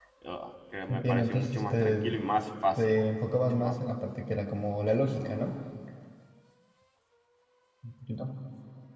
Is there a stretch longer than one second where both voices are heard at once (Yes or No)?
Yes